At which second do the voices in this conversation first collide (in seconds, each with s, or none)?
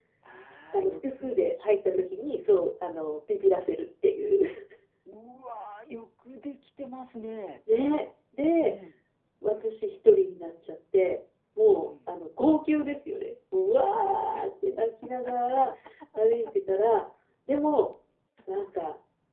0.7 s